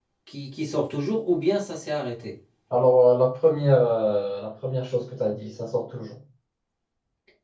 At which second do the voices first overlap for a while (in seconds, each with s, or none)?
none